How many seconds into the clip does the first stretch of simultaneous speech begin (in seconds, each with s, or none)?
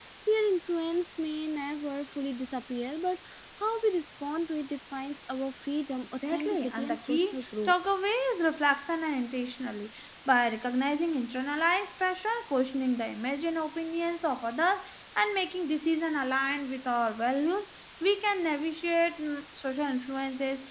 6.2 s